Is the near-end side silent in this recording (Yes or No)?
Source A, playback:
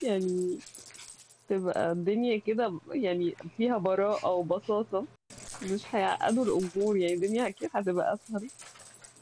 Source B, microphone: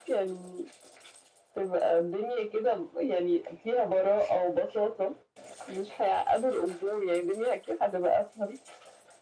Yes